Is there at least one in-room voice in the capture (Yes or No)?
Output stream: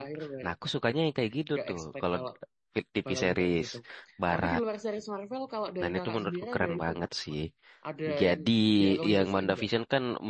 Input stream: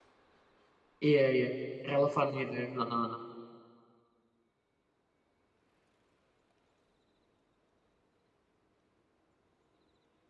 Yes